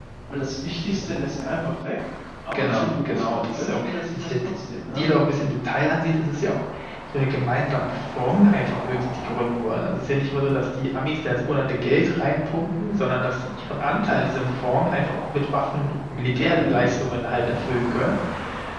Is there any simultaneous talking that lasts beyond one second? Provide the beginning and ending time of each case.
2.5-4.6

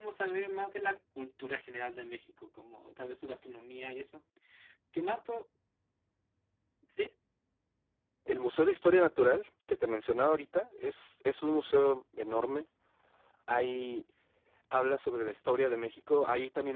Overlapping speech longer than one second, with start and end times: none

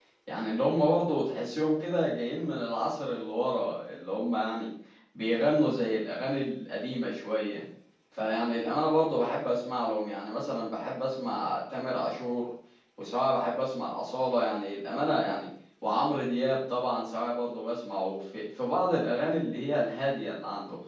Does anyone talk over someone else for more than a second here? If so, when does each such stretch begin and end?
none

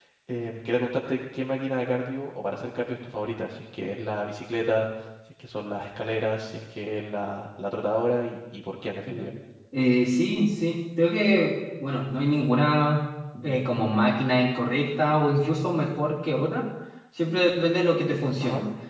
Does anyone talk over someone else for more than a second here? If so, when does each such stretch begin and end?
none

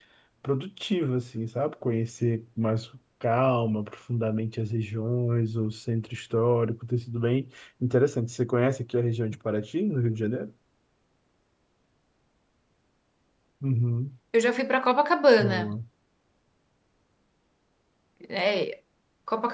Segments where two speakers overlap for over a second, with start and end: none

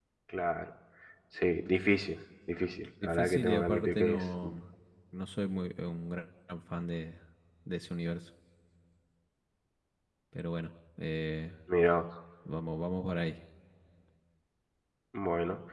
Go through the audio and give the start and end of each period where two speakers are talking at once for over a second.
3.0-4.2

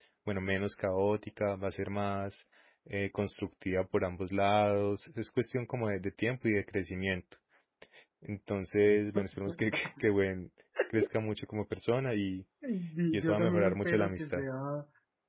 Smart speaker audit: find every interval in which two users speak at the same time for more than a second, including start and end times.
13.1-14.4

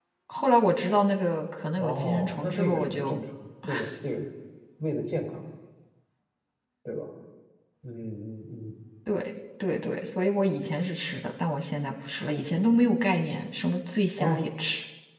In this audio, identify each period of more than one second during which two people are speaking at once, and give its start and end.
1.8-3.2

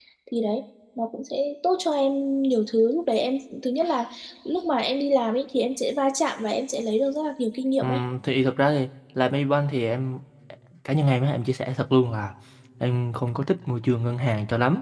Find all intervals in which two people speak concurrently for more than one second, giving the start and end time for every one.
none

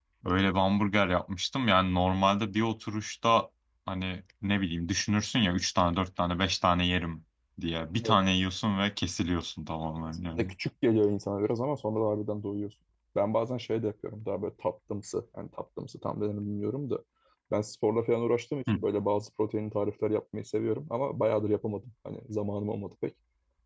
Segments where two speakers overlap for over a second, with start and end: none

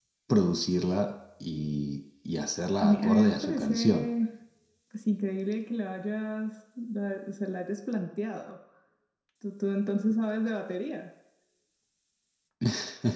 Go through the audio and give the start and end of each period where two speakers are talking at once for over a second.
2.8-4.0

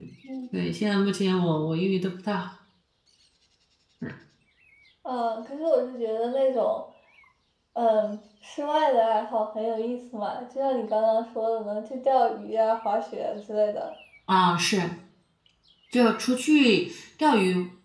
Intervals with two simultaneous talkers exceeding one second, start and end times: none

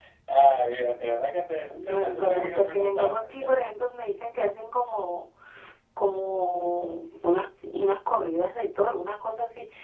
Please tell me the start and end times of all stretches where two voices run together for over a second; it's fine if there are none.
1.7-3.7

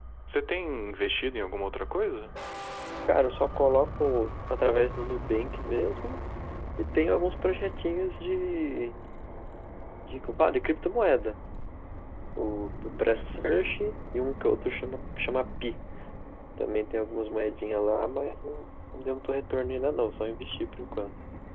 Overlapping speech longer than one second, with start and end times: none

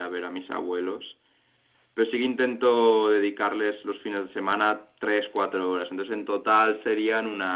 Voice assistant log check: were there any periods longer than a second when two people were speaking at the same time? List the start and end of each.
none

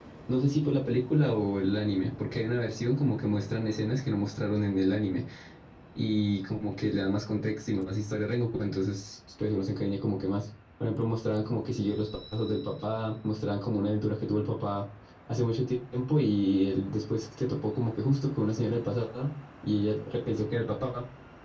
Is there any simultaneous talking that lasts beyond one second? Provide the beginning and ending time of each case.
none

